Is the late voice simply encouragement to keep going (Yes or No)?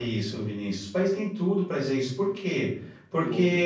Yes